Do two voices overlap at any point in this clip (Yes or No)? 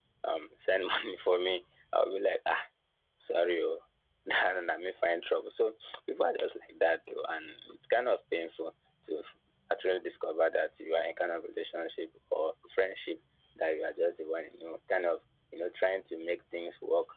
No